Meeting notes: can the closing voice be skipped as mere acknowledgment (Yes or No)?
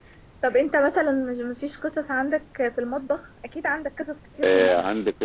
No